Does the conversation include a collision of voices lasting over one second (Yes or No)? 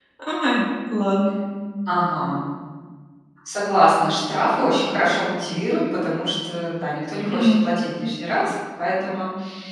No